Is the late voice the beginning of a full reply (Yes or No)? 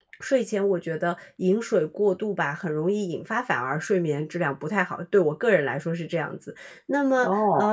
No